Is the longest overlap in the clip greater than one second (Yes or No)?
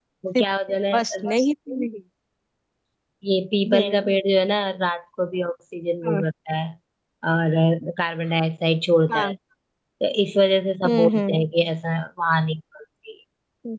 No